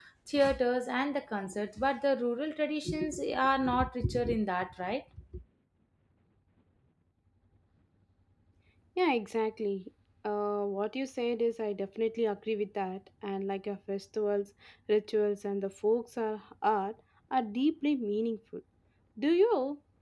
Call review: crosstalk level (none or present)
none